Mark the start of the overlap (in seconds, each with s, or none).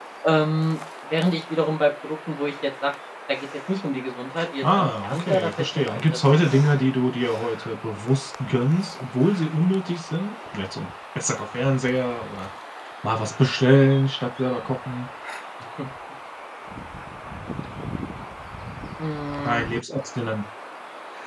4.6 s